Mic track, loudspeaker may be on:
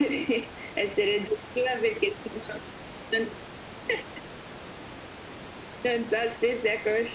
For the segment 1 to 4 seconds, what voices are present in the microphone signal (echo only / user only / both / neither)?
echo only